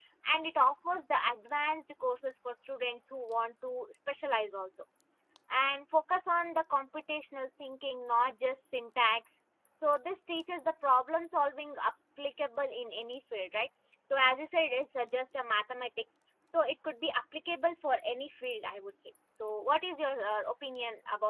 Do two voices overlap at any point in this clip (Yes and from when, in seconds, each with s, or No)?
No